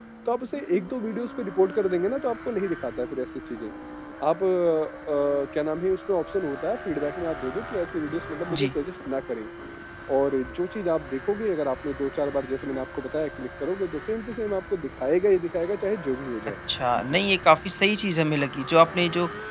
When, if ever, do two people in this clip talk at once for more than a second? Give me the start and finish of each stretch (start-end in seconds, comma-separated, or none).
none